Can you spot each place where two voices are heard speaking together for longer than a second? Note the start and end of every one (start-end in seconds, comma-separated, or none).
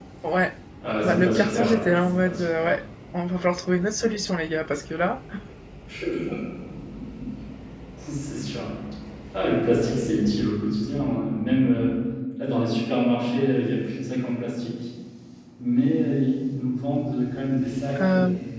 1.0-2.7